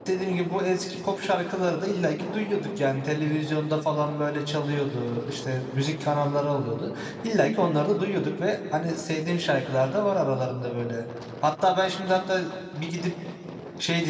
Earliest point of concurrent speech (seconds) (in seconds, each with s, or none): none